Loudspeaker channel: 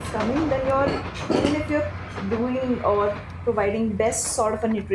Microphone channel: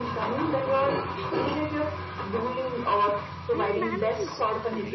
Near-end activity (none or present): present